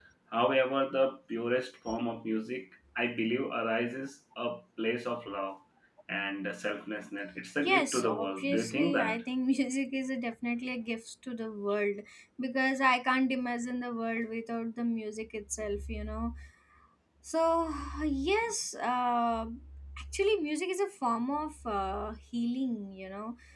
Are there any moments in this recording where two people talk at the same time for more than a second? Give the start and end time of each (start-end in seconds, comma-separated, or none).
7.6-9.2